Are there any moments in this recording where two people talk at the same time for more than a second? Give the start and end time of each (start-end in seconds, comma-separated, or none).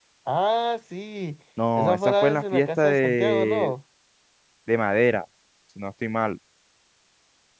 1.8-3.7